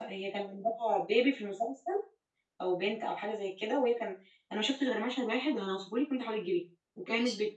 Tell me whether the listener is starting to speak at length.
No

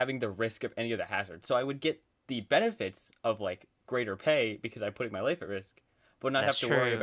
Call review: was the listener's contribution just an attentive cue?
Yes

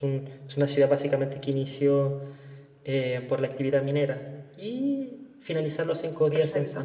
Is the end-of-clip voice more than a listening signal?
No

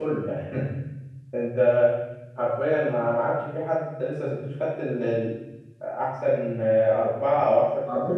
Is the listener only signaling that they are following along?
No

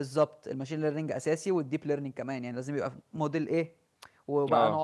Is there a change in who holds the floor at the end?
No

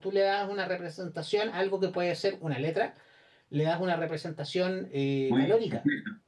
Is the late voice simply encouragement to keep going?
No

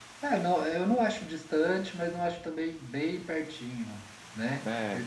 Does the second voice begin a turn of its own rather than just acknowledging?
No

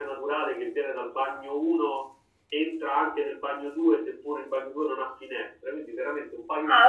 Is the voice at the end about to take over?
Yes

